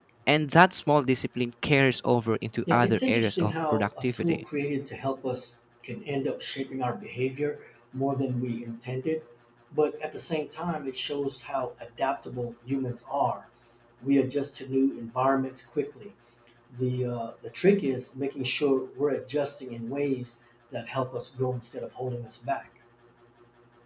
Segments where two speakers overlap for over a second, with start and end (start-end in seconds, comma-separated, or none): 2.7-4.4